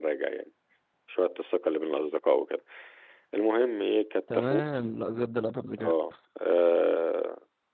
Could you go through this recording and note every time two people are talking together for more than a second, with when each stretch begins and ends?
none

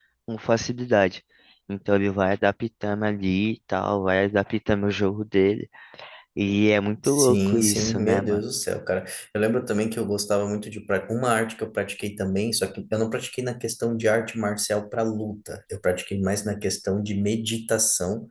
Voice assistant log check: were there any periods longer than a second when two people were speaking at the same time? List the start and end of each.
7.1-8.4

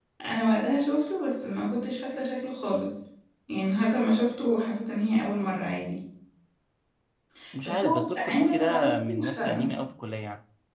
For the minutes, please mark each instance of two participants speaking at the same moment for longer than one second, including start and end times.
7.6-9.7

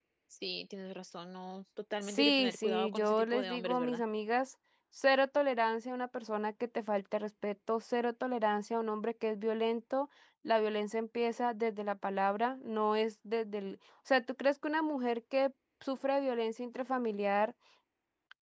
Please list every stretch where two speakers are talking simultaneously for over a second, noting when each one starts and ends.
2.0-4.0

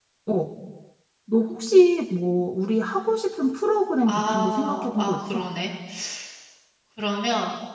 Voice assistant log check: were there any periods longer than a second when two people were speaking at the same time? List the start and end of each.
4.1-5.4

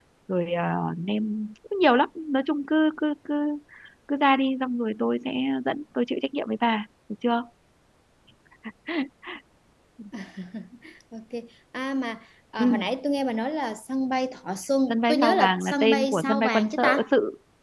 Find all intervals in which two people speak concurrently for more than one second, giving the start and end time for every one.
14.9-17.1

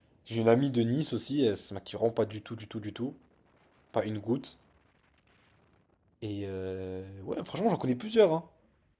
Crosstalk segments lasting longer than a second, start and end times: none

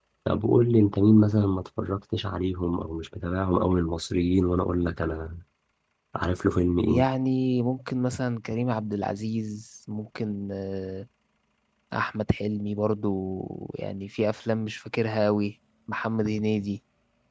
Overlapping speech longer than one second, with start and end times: none

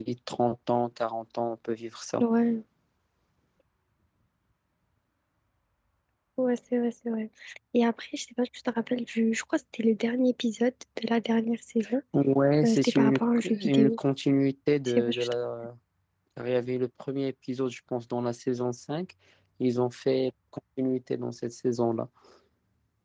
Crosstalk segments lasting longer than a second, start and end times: 12.6-14.0

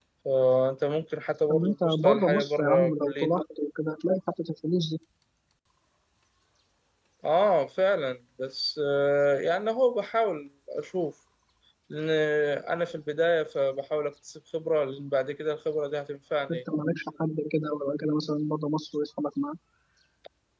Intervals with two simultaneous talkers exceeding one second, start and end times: 1.5-3.3

